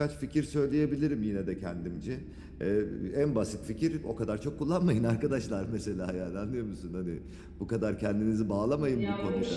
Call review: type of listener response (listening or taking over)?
taking over